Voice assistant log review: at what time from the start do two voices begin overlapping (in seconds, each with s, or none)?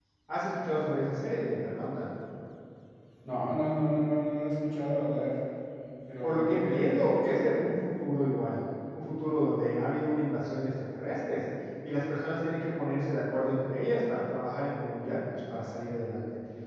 6.2 s